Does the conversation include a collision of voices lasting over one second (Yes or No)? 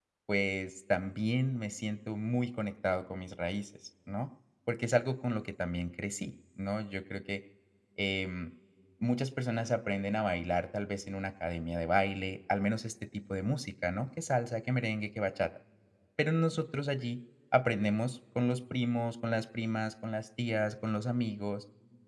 No